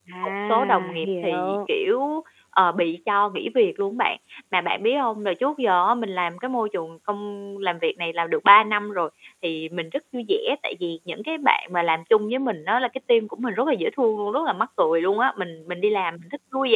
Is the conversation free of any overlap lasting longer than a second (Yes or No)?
No